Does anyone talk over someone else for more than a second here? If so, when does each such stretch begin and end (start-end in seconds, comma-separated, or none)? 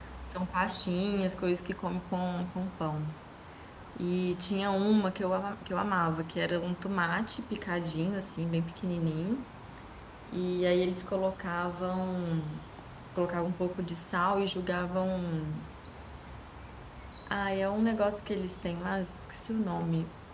none